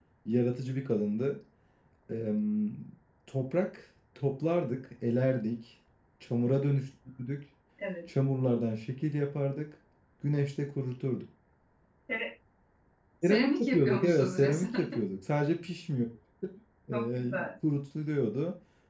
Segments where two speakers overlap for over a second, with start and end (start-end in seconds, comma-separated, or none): 13.2-14.8